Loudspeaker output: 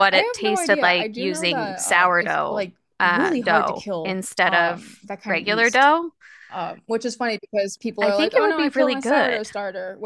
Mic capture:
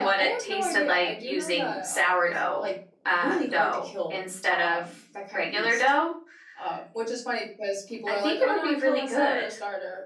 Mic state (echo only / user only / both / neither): echo only